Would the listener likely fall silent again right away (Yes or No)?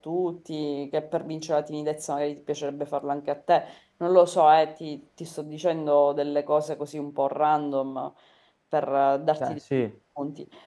Yes